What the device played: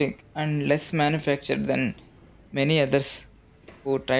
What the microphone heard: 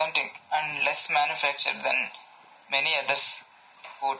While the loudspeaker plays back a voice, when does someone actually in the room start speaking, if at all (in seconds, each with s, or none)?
none